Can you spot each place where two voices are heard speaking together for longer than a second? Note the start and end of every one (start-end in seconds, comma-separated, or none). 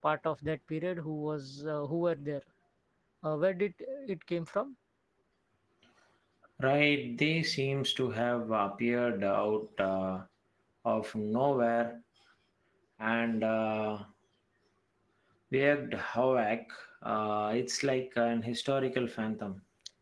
none